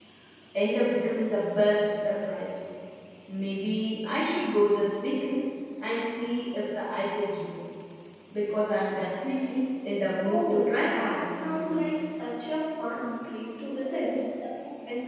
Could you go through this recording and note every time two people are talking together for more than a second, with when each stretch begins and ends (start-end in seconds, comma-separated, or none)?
10.2-11.8